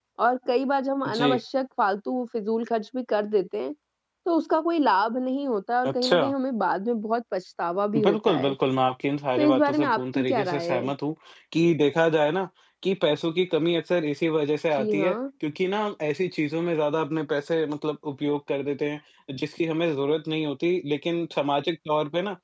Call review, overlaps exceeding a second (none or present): present